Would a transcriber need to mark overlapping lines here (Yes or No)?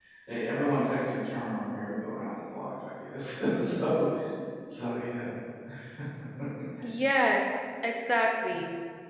No